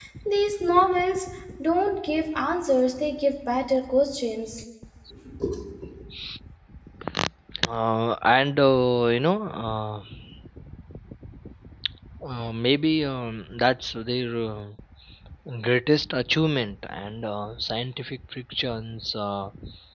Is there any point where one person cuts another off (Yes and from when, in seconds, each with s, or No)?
No